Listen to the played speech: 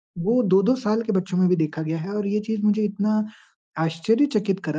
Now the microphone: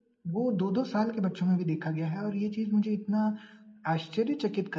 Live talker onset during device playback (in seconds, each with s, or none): none